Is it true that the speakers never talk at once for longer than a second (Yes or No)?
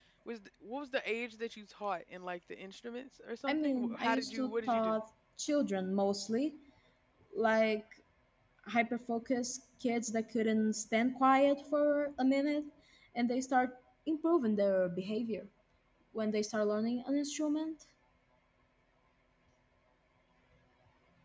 No